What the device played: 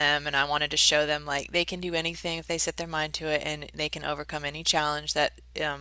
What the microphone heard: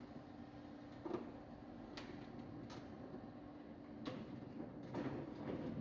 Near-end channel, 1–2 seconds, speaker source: neither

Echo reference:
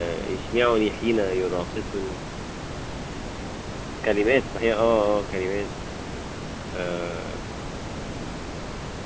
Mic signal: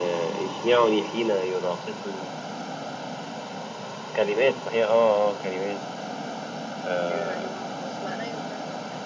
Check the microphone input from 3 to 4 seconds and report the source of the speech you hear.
neither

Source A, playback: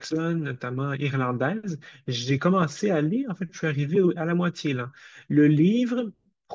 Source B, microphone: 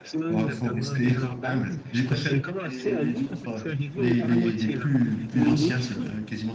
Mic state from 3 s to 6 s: both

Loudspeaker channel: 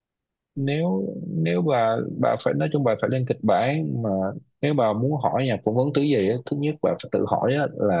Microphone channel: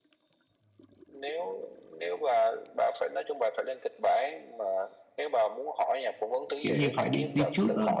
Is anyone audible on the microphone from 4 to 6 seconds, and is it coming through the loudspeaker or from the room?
echo only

